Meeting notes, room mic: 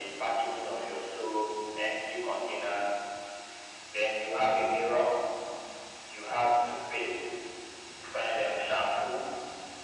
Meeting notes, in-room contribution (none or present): none